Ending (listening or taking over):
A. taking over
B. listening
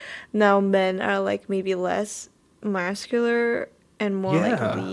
A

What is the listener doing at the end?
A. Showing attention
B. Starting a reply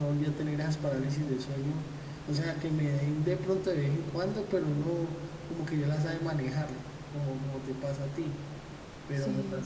A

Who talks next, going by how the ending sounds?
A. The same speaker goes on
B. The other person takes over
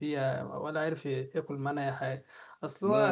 A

